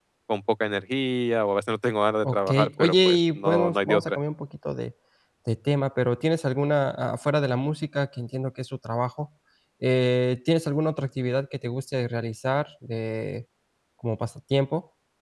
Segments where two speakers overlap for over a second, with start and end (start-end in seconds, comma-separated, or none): 2.2-4.2